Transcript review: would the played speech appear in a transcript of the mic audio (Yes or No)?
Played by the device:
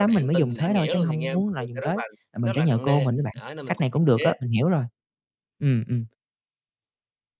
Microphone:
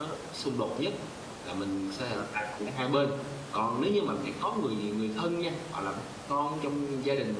No